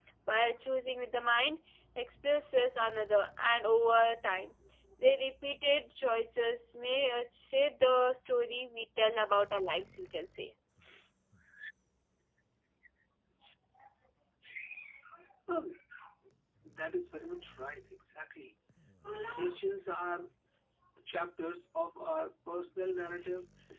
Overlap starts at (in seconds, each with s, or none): none